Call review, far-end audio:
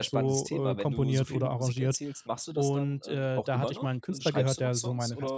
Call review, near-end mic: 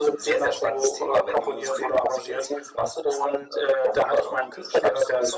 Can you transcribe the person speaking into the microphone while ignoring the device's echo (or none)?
none